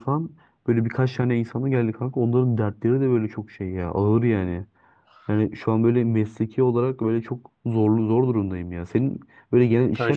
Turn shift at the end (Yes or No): No